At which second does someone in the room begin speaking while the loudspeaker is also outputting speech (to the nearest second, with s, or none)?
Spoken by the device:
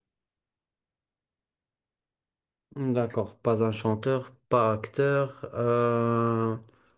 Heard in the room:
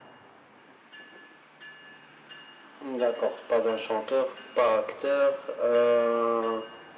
none